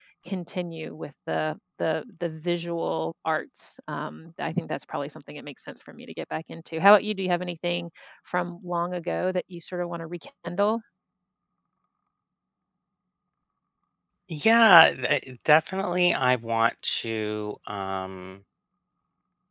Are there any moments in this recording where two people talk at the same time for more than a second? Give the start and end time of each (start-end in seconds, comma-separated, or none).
none